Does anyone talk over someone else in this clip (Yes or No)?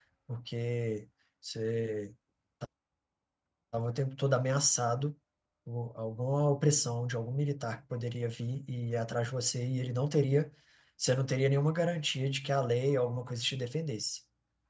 No